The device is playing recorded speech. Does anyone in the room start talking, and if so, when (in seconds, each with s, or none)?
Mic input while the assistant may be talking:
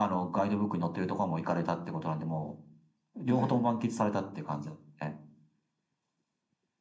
3.2 s